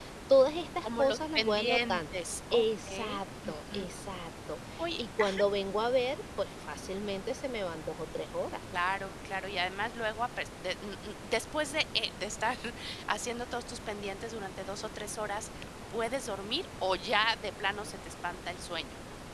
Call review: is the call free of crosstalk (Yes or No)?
No